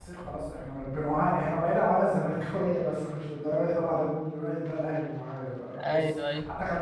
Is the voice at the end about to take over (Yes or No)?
No